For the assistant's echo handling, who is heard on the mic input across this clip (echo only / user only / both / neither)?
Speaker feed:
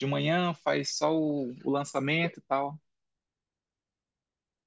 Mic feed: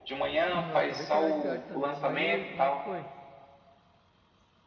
both